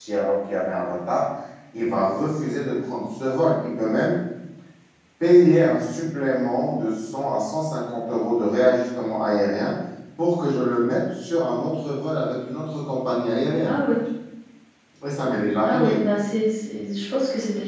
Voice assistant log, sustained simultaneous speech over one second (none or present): none